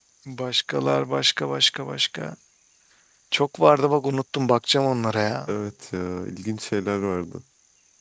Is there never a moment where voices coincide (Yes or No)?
Yes